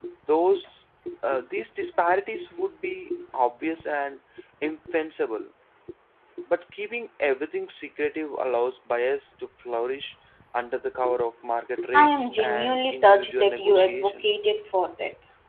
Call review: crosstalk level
present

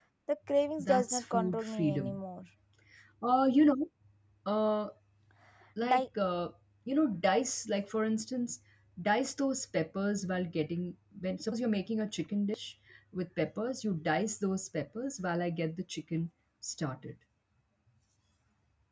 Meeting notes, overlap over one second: present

